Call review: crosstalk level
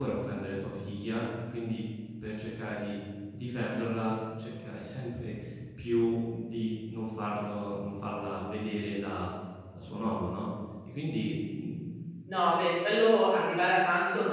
none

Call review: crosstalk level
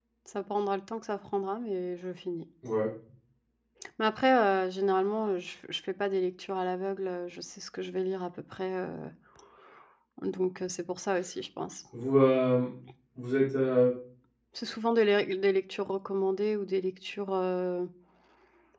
none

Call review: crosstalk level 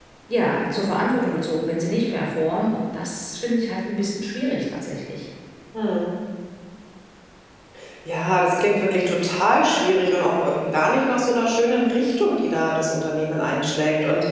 none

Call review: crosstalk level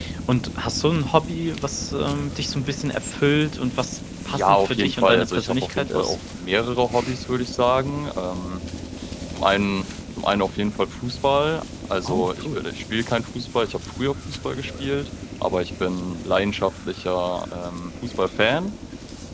present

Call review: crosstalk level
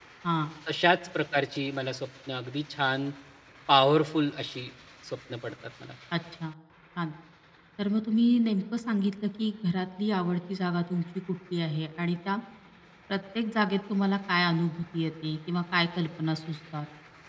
none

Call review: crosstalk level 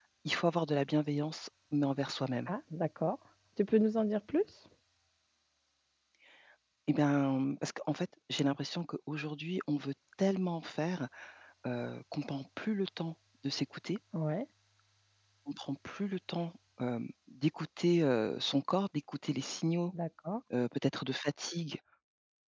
none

